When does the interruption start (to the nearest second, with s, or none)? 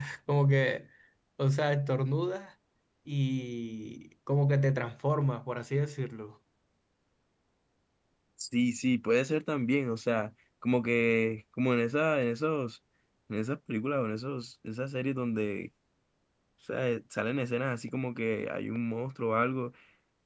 none